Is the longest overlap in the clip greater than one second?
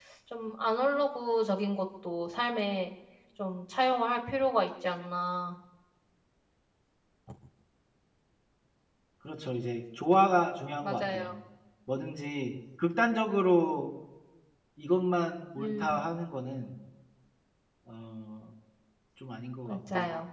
No

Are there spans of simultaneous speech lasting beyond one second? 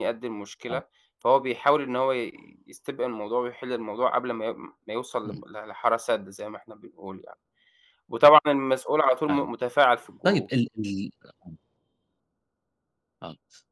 No

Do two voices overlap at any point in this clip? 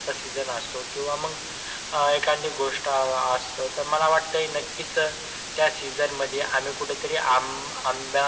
No

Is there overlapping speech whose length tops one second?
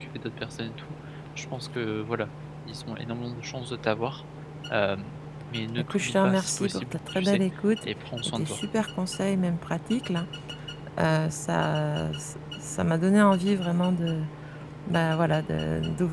Yes, from 5.8 s

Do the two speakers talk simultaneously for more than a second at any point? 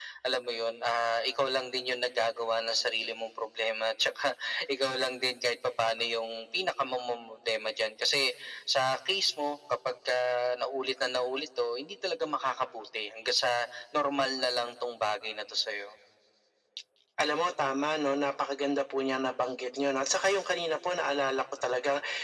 No

